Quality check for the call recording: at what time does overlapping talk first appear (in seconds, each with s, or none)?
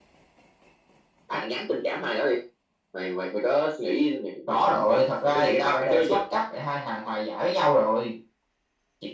4.5 s